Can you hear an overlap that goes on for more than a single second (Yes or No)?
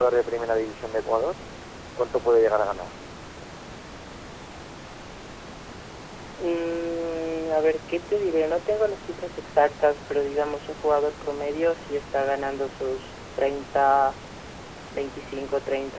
No